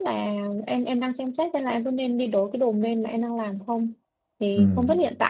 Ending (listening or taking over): listening